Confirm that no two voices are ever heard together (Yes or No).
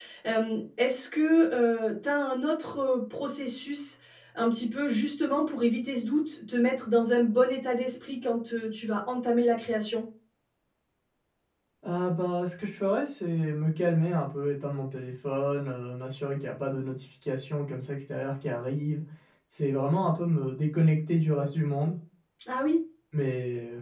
Yes